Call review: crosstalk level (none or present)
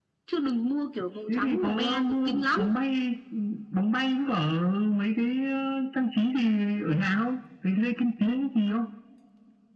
present